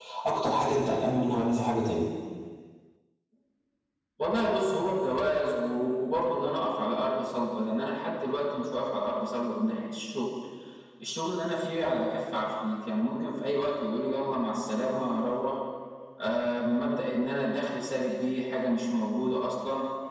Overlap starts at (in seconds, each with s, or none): none